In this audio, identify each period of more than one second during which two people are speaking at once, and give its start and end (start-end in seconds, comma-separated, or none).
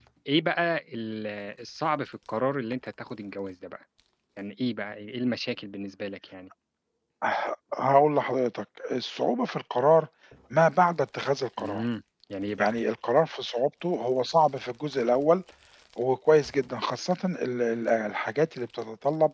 none